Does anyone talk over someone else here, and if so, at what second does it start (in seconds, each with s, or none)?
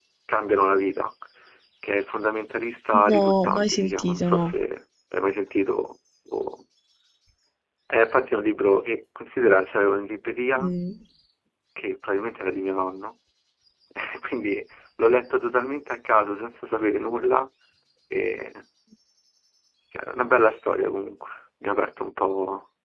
2.9 s